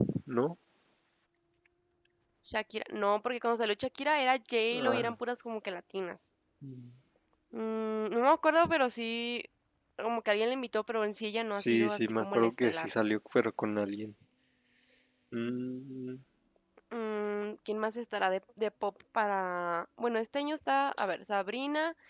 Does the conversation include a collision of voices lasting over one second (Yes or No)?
Yes